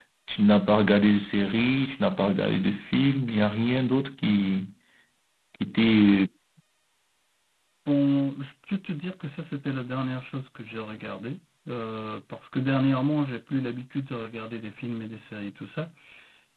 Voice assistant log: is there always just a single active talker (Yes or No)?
Yes